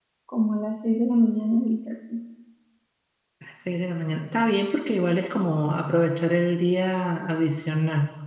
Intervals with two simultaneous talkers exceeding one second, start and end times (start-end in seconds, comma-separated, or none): none